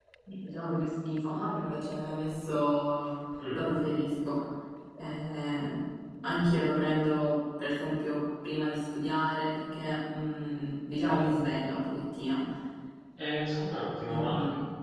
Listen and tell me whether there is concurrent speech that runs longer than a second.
No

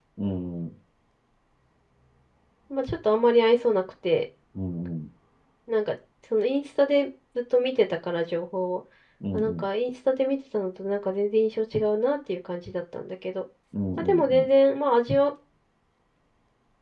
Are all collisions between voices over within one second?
Yes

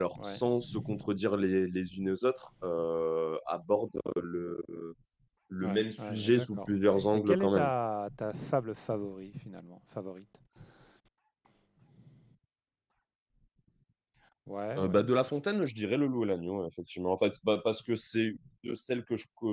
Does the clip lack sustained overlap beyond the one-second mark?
No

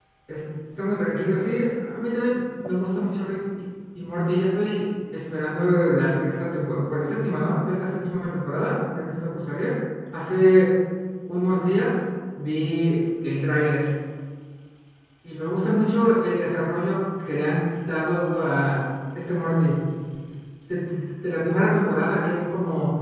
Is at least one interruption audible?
No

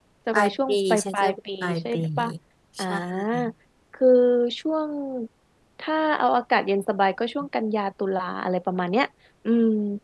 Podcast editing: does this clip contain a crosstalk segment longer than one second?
Yes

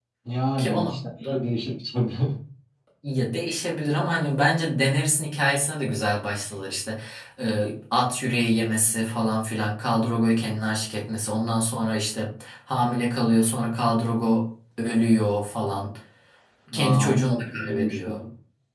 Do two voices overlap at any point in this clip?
Yes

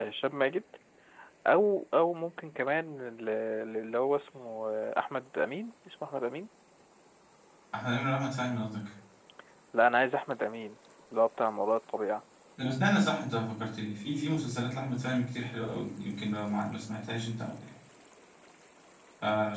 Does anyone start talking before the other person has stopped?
No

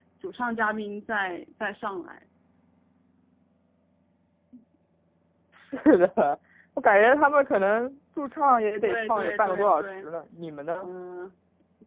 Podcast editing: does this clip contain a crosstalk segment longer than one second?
Yes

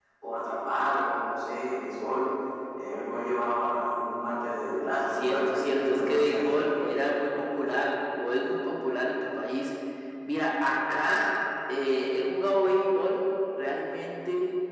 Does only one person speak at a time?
No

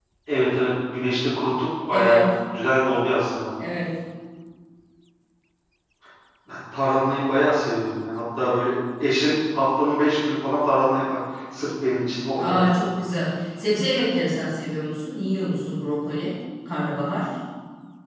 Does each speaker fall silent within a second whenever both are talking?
Yes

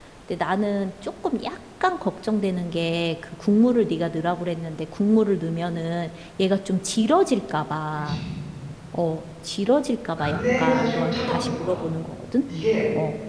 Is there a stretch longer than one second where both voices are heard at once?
Yes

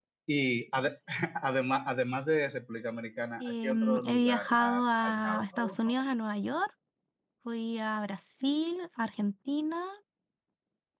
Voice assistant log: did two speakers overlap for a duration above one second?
Yes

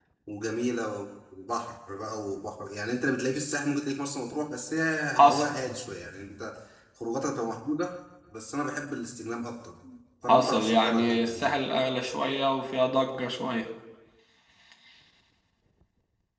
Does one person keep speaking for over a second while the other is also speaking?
Yes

